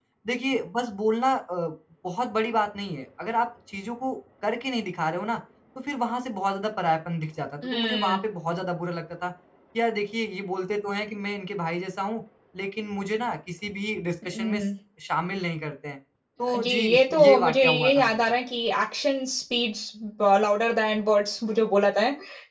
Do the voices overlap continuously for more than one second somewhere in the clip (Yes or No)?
Yes